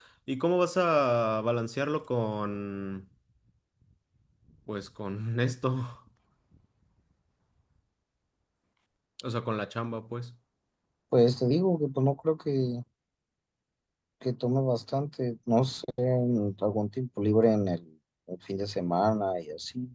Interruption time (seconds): none

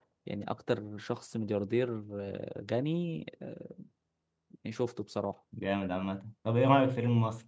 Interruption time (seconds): none

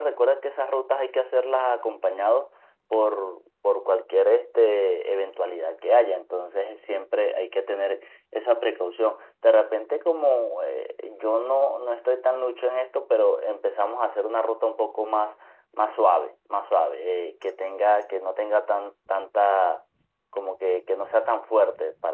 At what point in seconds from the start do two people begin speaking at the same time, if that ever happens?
none

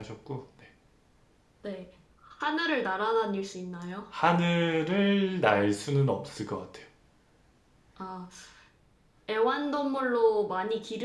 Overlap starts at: none

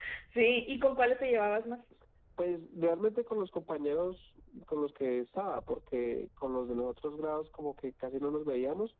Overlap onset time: none

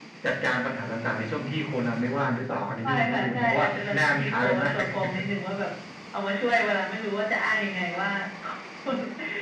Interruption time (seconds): 2.8 s

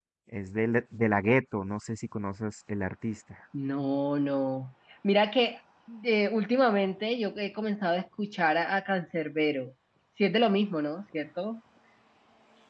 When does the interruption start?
none

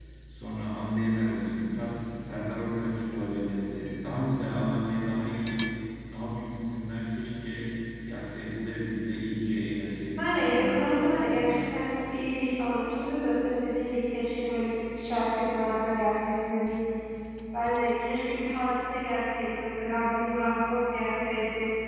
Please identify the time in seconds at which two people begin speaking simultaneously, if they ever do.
10.2 s

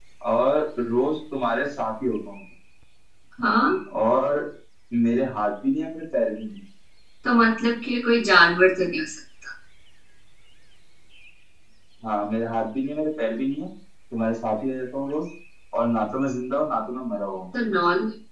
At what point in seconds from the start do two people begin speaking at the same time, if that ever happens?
none

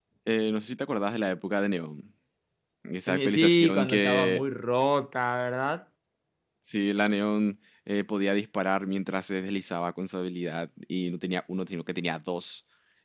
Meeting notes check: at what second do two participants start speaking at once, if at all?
3.1 s

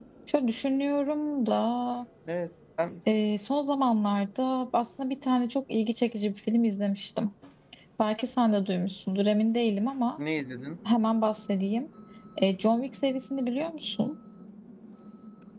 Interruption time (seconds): none

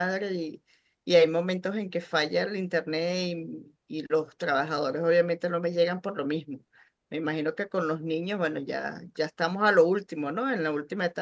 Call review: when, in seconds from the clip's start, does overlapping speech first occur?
none

